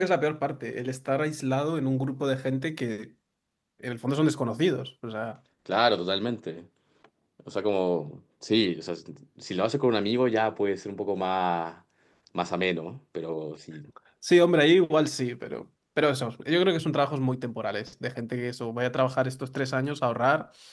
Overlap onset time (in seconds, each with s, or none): none